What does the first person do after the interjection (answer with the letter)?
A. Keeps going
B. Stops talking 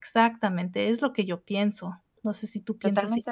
B